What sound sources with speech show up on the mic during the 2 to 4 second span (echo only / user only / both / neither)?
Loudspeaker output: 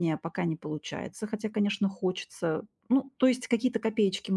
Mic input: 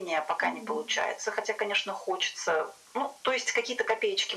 echo only